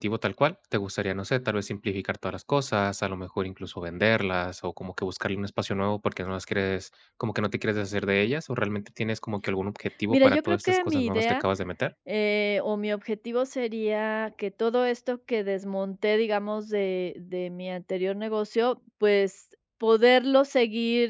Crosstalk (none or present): present